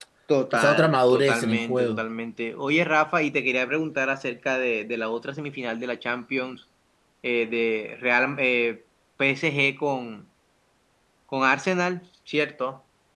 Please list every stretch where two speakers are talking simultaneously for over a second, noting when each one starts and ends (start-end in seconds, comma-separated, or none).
0.5-2.0